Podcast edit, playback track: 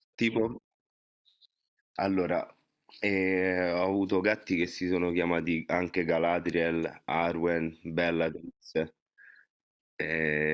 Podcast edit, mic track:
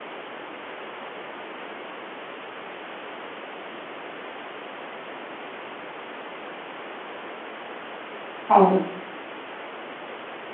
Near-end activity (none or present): present